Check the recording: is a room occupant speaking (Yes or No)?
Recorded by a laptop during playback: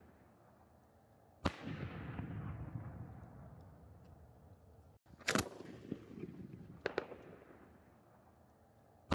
No